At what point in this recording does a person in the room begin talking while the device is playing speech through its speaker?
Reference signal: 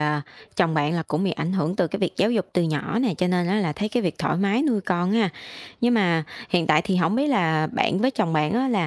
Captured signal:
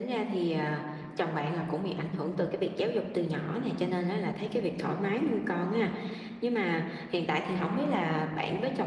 none

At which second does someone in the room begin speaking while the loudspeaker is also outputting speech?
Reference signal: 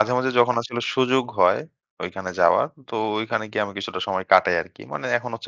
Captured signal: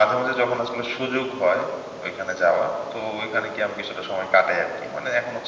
none

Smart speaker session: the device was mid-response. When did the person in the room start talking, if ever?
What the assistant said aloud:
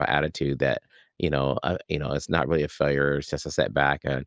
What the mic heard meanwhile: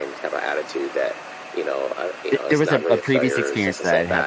2.3 s

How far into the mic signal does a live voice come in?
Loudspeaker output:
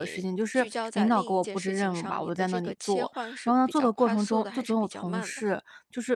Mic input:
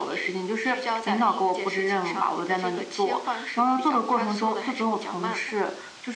none

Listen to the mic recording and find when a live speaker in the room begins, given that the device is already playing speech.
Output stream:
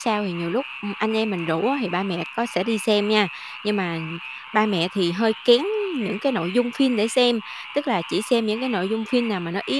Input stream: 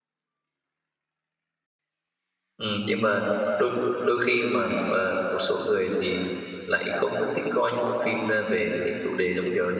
2.6 s

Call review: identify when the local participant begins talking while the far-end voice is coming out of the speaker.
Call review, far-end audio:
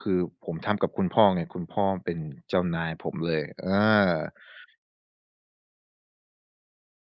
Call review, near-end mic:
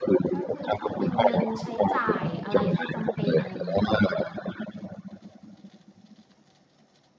0.3 s

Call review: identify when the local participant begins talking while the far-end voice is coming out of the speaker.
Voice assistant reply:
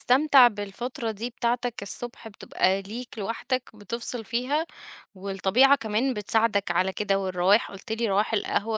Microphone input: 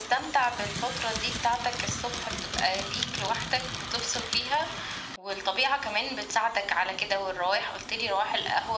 none

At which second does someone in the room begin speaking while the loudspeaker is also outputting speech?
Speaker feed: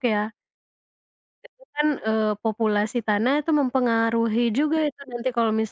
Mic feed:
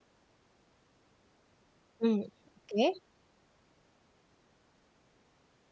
2.0 s

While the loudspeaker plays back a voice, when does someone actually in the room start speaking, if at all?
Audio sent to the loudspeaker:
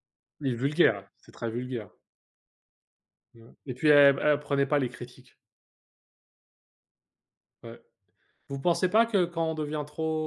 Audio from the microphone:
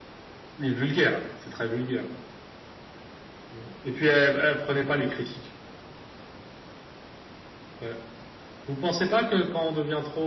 none

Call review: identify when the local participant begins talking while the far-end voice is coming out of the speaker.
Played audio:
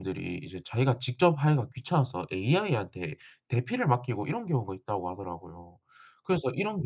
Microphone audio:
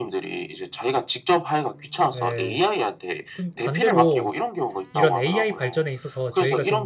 2.1 s

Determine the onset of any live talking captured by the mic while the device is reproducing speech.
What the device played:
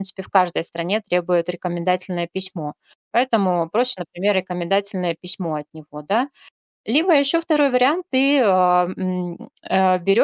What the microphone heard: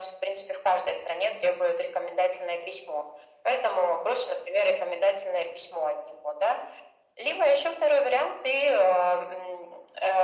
none

